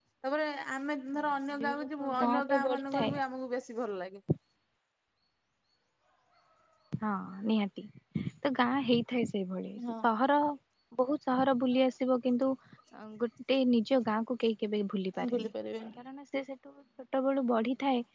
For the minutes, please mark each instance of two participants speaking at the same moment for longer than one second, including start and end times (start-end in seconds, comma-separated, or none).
1.6-3.1